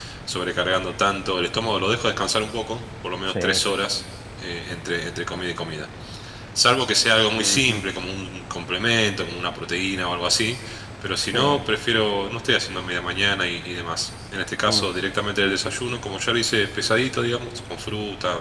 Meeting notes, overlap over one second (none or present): none